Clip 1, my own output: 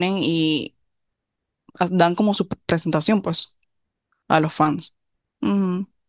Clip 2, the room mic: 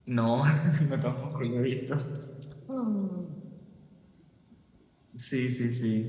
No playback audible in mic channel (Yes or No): Yes